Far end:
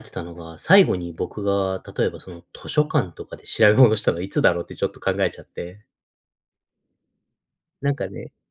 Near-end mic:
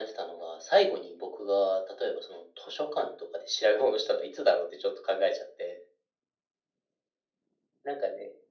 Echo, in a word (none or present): present